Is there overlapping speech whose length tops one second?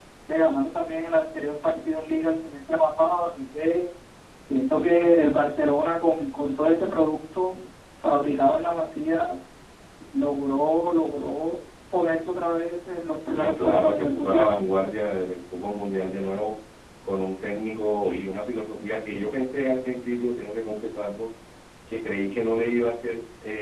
Yes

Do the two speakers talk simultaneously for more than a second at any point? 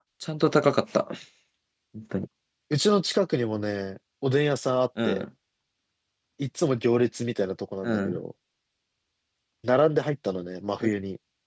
No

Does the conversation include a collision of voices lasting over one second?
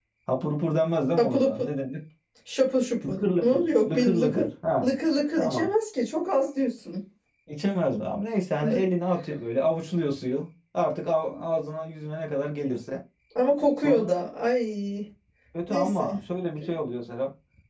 Yes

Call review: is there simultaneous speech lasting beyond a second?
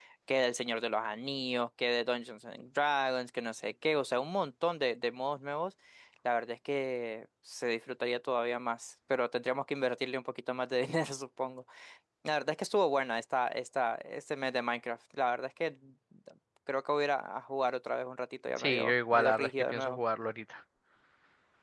Yes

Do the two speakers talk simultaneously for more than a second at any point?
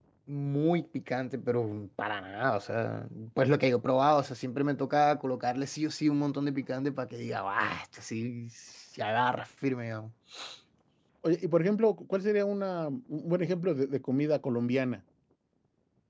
No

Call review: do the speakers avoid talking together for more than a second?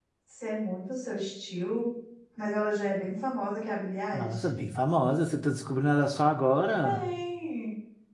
Yes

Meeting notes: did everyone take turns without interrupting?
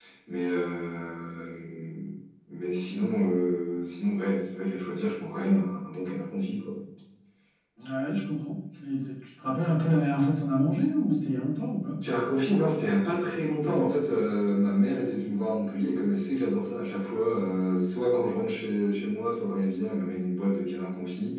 Yes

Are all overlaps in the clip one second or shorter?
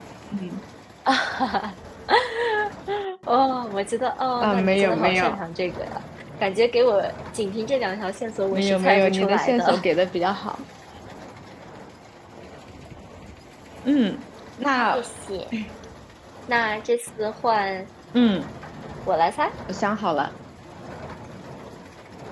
No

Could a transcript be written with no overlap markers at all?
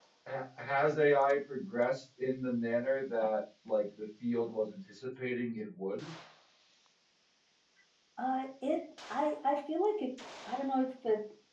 Yes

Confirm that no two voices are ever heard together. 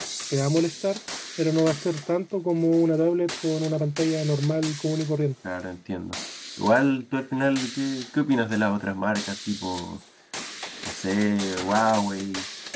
Yes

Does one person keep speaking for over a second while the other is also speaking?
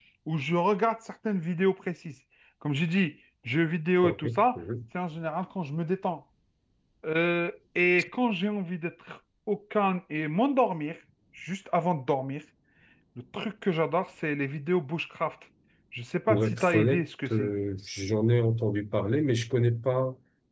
Yes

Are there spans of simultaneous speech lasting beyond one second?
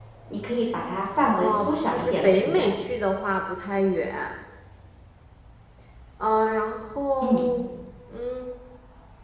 Yes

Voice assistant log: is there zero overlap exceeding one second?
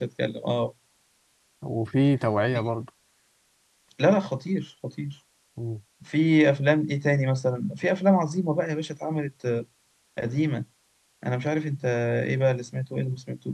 Yes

